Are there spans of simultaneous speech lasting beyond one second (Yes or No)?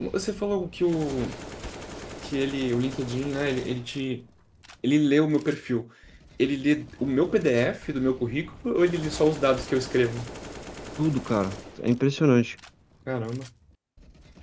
No